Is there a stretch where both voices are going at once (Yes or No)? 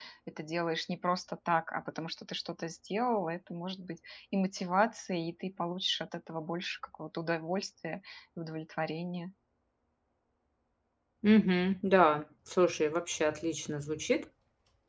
No